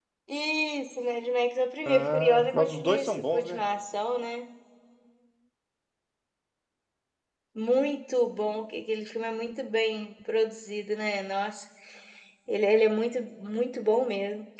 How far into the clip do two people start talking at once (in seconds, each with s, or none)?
1.9 s